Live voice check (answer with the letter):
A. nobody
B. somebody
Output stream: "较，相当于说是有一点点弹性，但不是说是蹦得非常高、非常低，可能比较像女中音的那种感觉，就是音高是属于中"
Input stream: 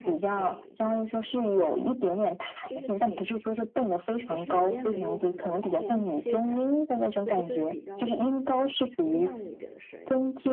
B